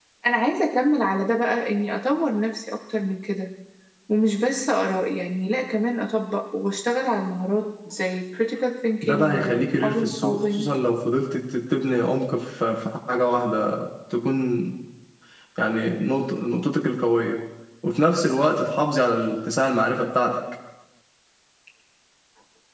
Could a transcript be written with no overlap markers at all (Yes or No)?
No